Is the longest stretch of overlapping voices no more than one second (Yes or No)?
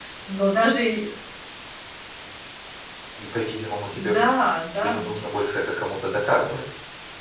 Yes